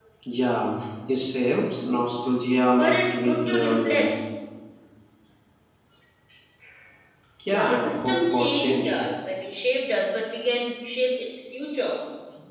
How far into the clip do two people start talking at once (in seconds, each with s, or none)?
2.7 s